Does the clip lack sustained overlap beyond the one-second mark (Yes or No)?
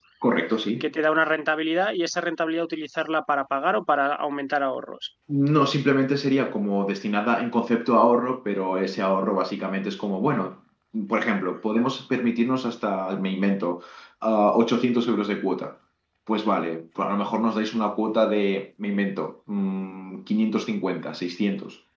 Yes